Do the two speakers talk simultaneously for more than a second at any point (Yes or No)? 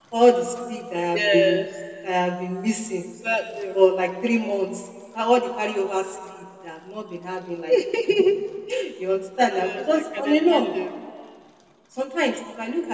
Yes